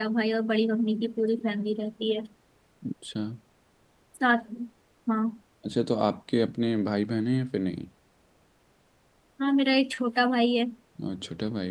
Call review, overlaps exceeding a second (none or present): none